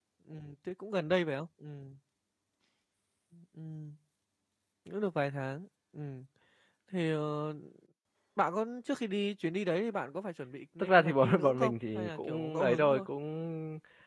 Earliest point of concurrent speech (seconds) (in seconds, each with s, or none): 10.8 s